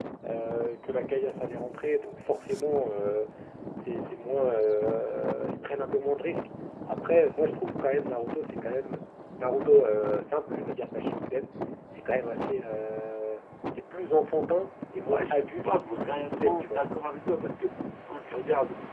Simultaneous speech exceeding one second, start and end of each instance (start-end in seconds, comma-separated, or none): 15.1-16.8